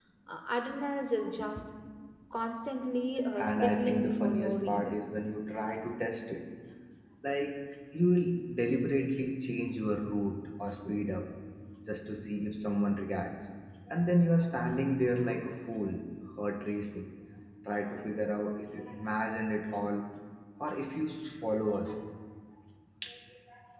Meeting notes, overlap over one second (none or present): present